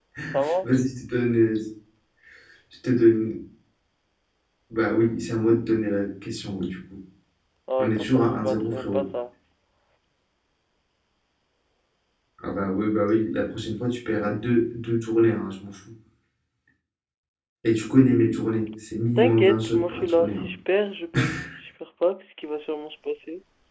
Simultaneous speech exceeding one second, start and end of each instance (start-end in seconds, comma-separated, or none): 7.8-9.1, 19.2-20.5